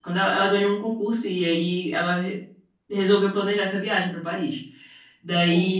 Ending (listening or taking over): listening